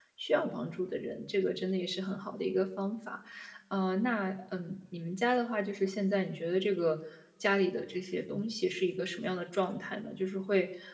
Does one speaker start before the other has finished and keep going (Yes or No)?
No